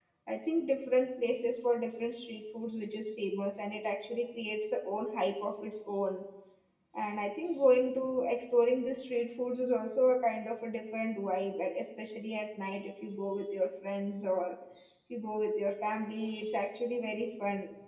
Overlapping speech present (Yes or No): No